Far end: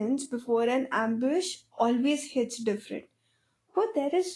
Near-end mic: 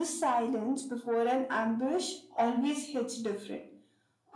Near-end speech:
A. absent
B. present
A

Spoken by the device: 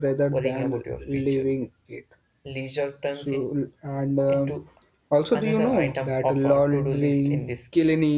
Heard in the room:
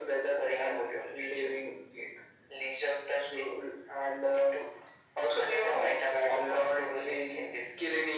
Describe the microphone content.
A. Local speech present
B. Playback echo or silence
B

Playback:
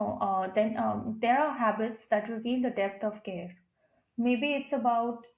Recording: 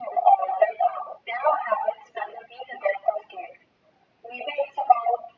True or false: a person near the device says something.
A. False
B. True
A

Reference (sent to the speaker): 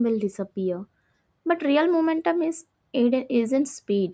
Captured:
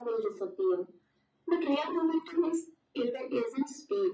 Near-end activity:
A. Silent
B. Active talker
A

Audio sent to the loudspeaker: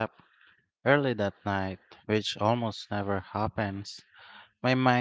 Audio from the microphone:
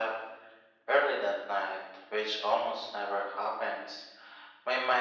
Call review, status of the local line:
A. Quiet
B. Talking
A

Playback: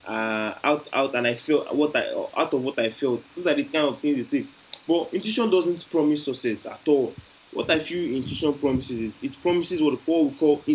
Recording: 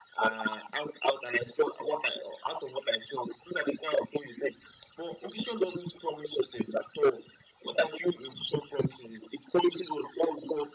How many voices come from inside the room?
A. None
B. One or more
A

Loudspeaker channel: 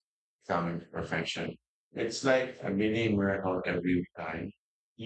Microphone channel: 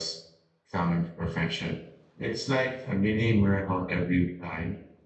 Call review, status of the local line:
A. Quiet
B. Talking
A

